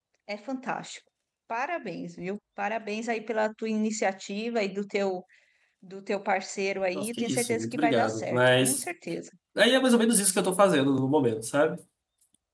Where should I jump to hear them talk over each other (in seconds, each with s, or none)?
7.0 s